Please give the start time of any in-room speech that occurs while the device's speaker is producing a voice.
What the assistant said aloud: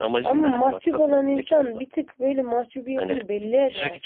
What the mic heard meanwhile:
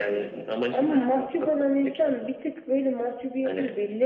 none

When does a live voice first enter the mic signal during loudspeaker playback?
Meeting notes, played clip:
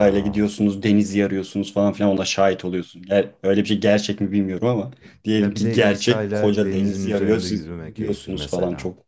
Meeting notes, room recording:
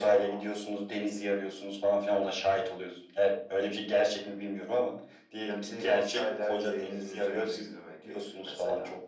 none

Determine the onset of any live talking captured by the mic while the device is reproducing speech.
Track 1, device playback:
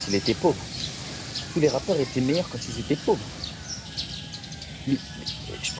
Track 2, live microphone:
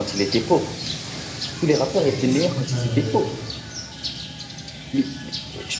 2.0 s

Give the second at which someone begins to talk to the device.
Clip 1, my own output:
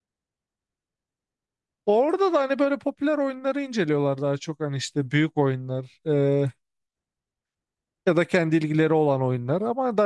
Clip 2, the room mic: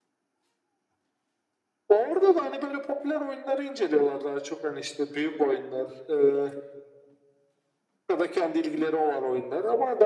none

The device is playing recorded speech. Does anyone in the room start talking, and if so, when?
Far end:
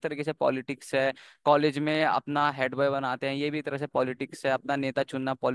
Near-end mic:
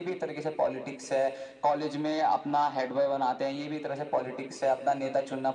none

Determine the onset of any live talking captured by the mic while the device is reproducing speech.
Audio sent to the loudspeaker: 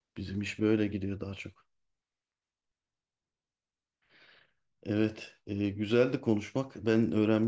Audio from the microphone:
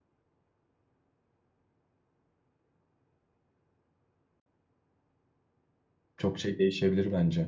6.2 s

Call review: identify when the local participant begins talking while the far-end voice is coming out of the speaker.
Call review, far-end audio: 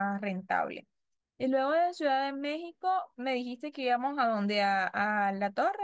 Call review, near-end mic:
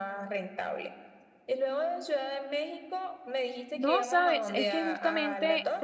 3.7 s

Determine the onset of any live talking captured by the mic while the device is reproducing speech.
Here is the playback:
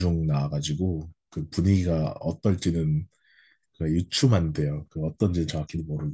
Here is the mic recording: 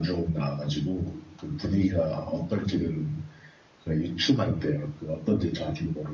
none

